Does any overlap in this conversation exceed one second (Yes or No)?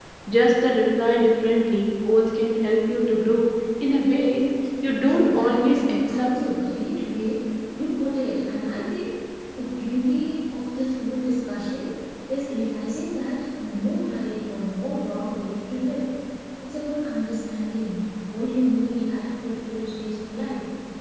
Yes